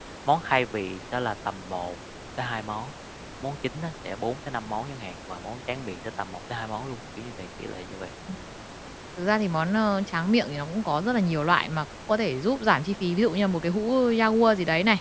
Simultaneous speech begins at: none

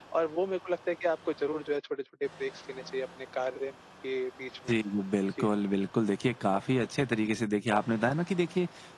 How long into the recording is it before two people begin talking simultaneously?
none

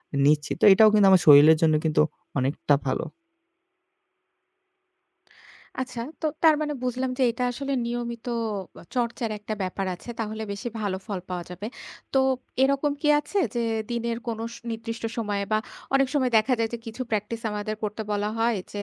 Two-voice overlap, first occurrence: none

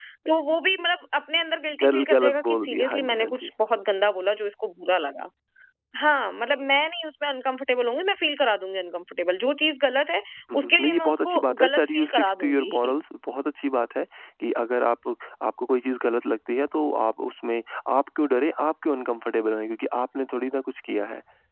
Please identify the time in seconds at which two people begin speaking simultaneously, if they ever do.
1.8 s

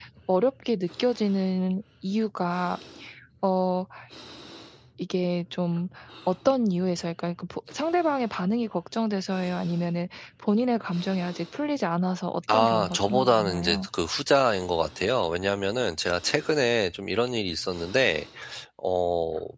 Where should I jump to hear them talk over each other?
12.5 s

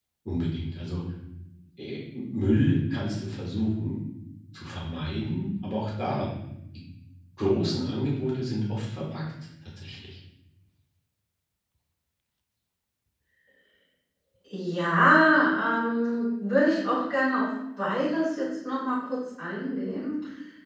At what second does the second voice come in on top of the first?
none

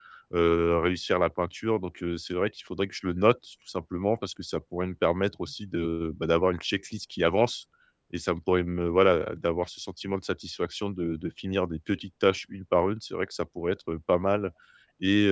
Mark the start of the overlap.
none

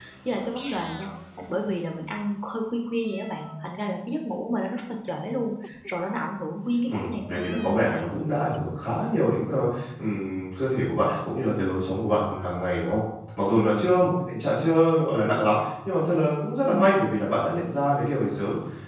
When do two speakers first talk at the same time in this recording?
6.8 s

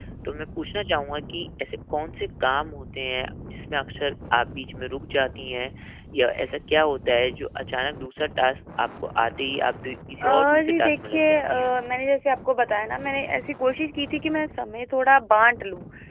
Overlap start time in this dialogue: 10.2 s

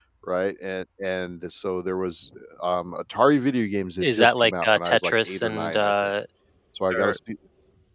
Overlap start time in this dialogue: 4.0 s

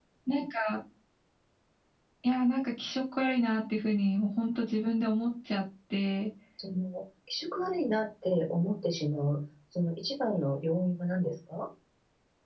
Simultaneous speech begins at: none

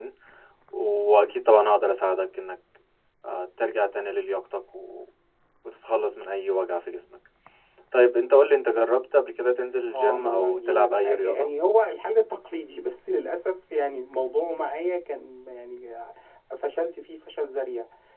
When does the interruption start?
9.9 s

